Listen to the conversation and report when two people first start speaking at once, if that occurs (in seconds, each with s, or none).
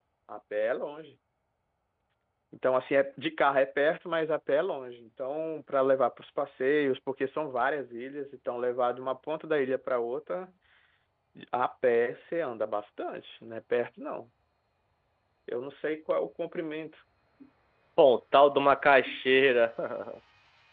none